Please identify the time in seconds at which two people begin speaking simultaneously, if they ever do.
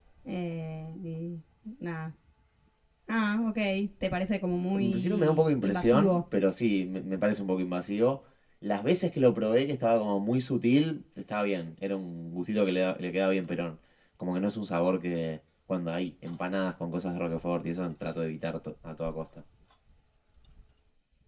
4.7 s

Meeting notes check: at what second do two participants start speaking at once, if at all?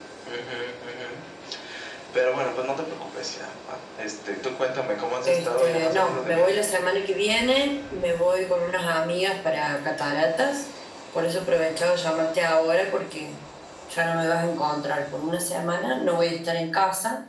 5.2 s

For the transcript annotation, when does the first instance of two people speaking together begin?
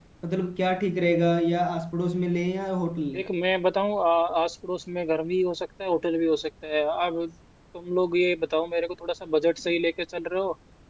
none

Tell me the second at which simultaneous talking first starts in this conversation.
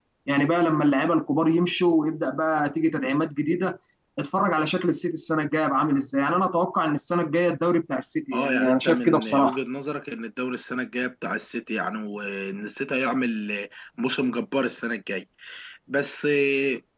8.3 s

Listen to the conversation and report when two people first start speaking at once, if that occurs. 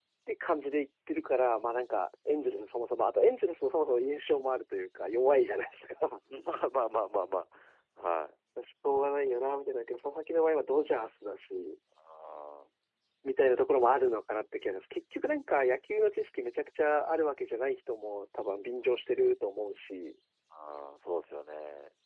none

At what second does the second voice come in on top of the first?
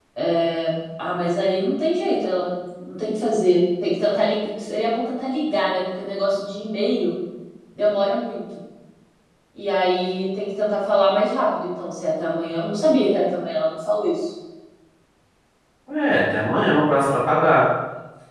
none

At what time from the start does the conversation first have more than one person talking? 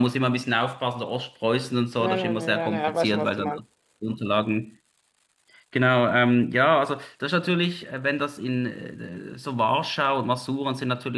2.0 s

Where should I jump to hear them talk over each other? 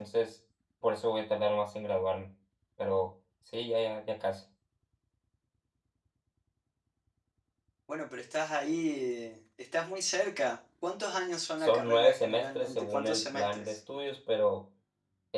11.6 s

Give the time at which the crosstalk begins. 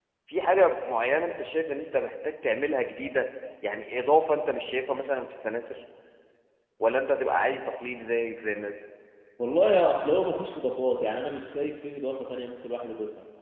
none

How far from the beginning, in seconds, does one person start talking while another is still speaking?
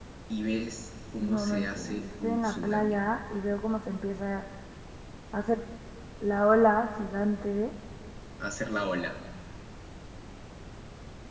1.2 s

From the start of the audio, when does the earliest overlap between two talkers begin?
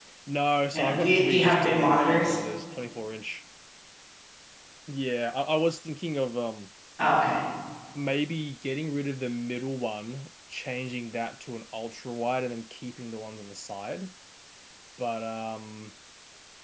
0.7 s

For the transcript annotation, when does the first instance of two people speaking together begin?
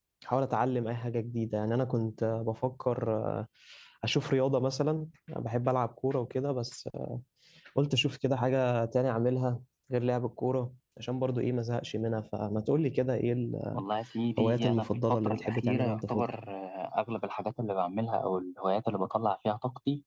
14.4 s

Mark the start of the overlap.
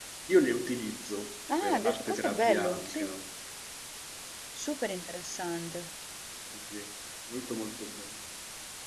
1.5 s

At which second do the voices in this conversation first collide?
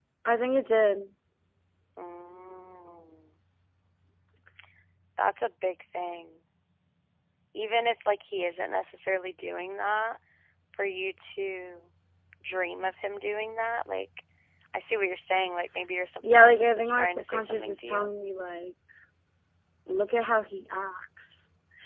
16.2 s

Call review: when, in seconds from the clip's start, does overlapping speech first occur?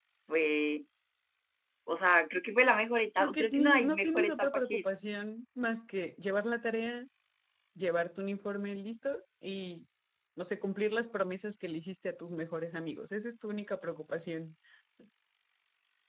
3.2 s

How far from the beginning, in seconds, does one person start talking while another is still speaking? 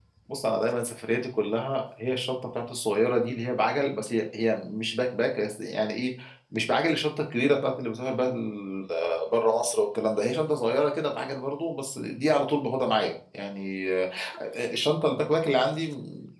none

